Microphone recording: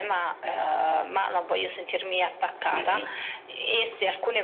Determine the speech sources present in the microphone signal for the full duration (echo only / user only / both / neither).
both